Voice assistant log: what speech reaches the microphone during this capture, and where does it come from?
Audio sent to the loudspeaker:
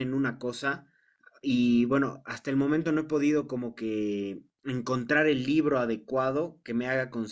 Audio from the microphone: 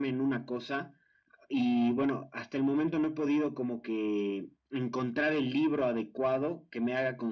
echo only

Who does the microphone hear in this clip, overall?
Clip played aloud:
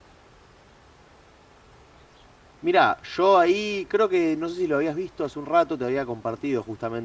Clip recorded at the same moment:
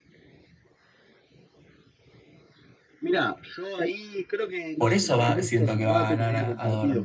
both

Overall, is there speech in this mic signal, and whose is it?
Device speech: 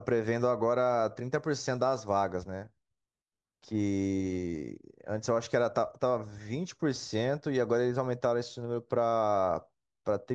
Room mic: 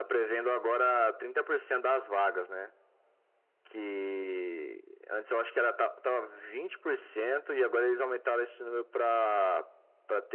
echo only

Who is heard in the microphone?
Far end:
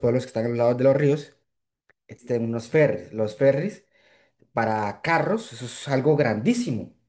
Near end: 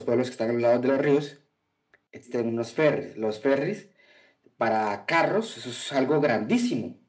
echo only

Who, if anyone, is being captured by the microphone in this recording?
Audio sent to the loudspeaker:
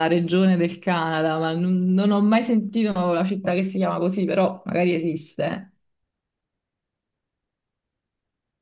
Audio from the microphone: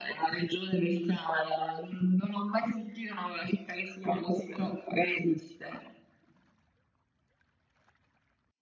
echo only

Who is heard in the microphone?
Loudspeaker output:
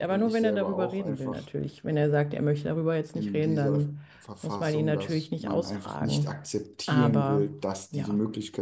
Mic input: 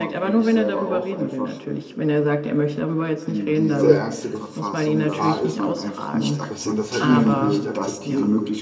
both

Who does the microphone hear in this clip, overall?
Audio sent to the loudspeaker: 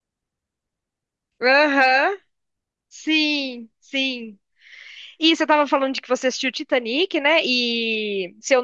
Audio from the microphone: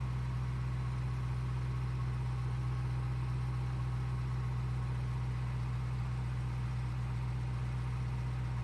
neither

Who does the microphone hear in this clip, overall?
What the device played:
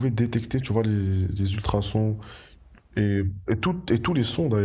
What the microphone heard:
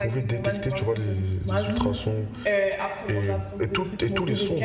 both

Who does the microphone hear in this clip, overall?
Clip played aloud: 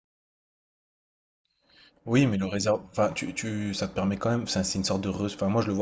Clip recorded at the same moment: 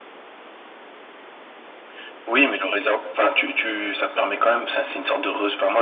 echo only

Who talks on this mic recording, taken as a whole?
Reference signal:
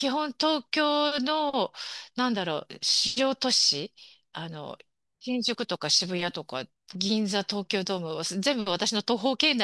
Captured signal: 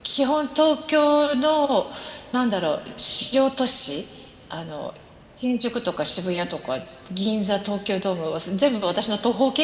echo only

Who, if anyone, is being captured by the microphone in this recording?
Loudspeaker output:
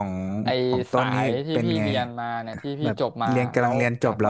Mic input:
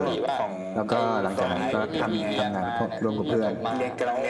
both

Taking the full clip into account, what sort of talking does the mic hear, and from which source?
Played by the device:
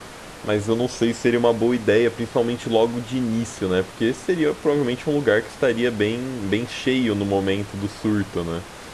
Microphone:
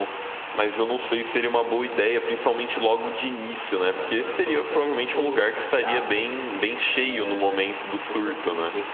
both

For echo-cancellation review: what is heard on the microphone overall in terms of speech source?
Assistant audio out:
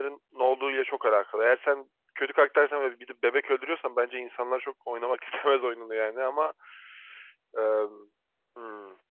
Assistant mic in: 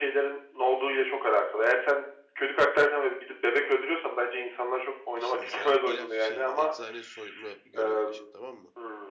both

